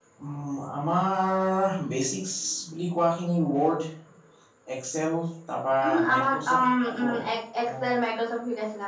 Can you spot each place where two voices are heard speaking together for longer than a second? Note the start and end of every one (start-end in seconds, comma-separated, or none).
5.8-7.1